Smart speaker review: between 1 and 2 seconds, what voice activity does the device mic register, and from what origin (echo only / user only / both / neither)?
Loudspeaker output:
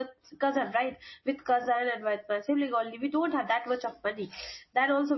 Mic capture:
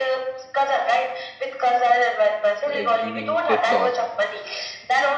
echo only